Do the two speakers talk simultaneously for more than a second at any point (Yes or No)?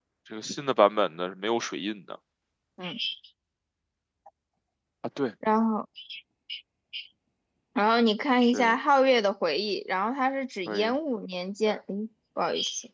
No